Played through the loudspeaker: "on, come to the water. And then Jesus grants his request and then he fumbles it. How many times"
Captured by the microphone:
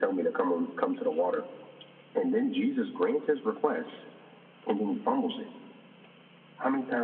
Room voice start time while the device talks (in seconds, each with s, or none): none